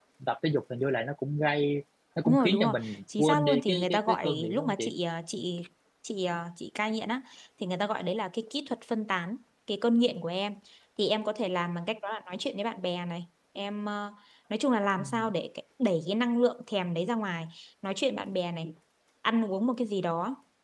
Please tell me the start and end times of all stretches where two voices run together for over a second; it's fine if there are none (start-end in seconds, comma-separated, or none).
2.2-4.9